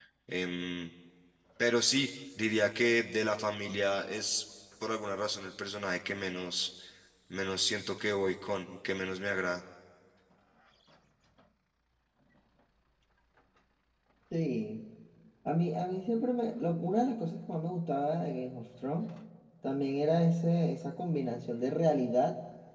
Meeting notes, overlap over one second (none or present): none